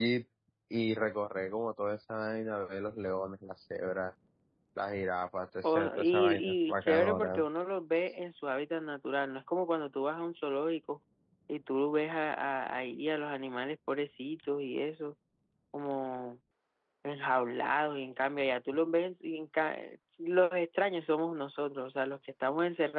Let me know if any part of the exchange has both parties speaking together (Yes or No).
Yes